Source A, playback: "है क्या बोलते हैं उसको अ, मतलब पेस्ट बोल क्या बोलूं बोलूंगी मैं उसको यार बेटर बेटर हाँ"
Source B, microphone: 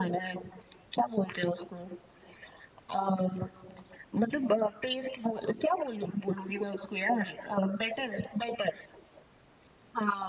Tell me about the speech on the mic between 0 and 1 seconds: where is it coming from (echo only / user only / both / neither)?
echo only